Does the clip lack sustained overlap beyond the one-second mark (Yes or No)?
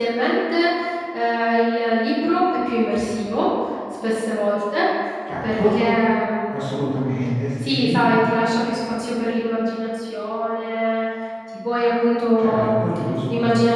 Yes